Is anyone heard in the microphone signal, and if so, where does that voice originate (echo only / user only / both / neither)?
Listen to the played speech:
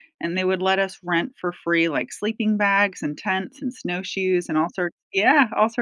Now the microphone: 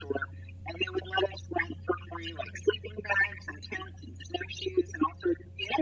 echo only